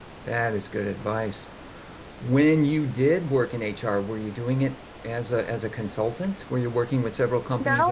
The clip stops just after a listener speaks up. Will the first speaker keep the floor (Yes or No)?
No